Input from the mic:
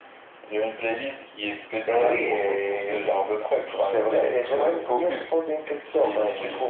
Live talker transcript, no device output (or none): none